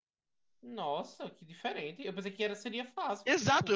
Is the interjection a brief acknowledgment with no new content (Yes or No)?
No